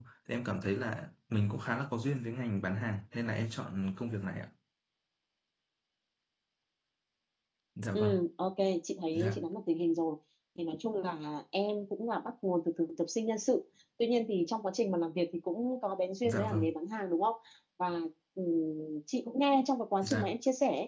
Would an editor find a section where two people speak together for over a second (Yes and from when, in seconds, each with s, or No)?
No